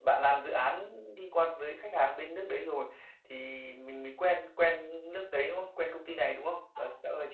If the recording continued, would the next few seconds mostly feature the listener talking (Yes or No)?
Yes